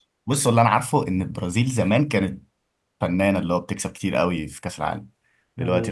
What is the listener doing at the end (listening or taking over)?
taking over